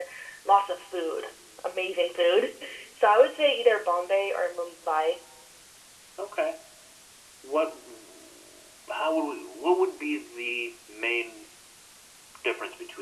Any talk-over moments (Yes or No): No